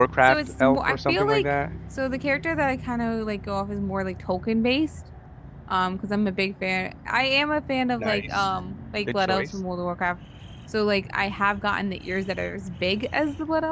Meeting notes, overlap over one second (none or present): present